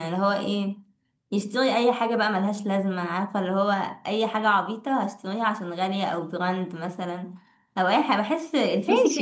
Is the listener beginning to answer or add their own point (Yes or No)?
Yes